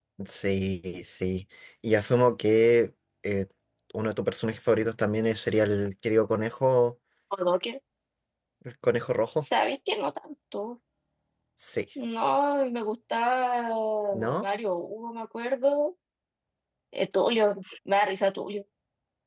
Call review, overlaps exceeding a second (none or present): none